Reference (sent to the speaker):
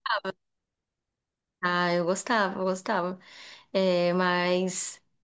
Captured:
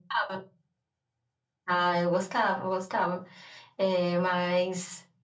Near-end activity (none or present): none